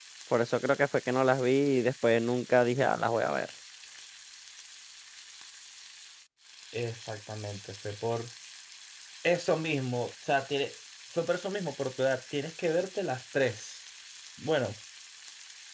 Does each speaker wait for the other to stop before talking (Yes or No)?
Yes